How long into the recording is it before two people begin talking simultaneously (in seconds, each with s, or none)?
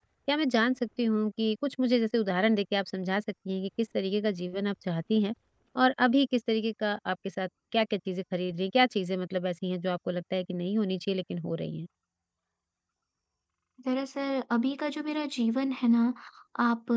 none